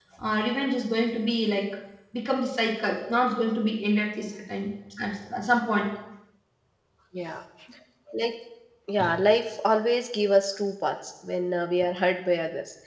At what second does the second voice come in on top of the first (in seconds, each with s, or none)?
none